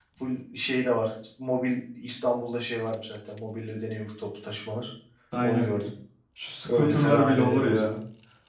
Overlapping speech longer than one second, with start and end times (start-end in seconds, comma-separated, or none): 6.7-7.9